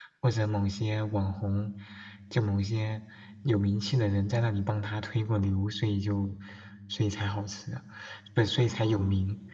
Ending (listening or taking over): listening